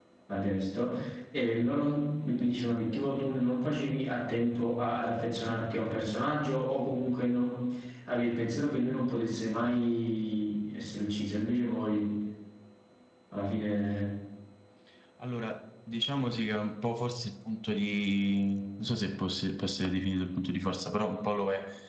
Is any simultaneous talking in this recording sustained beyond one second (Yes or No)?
No